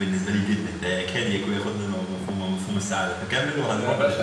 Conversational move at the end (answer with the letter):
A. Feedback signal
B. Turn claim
B